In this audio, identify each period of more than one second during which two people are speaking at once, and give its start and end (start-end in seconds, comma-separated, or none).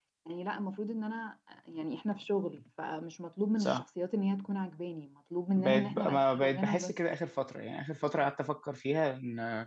5.6-6.9